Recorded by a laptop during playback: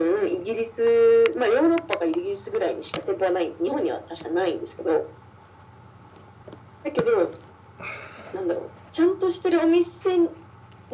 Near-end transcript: none

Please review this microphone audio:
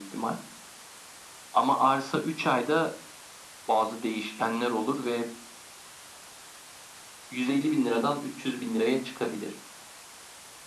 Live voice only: none

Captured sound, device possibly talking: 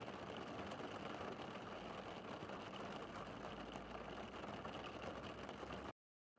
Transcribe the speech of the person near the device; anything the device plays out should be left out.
none

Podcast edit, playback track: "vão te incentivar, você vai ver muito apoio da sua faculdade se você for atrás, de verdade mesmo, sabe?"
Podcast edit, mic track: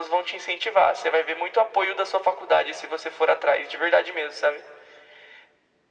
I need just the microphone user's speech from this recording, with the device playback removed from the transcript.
none

